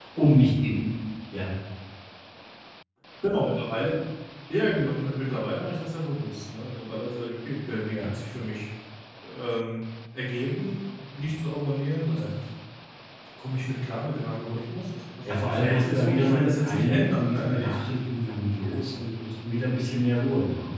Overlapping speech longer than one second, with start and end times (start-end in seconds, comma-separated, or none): 15.2-17.8